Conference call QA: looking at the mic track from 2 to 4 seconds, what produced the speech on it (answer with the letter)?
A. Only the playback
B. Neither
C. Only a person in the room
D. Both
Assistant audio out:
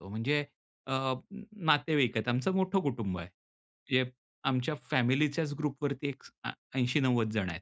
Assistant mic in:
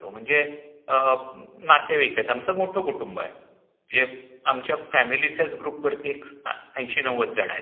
A